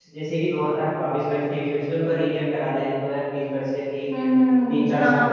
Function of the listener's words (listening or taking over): taking over